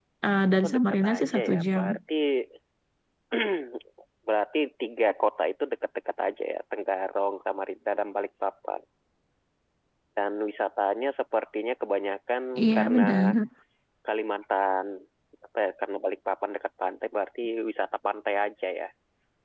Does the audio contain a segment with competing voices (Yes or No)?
Yes